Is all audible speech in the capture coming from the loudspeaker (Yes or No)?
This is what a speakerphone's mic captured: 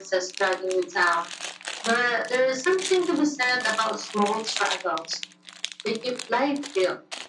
Yes